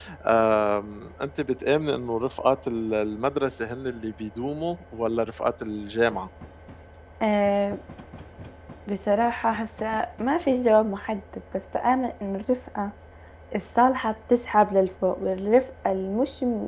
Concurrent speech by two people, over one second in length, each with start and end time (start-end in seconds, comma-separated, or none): none